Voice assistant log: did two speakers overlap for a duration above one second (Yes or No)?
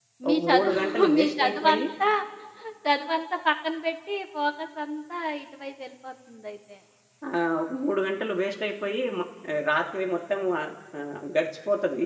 Yes